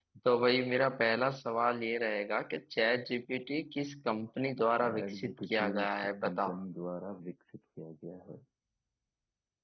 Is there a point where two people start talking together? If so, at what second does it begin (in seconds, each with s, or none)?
4.8 s